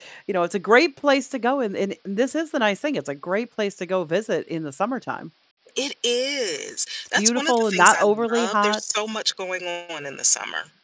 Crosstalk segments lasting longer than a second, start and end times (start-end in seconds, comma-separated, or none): 7.2-8.8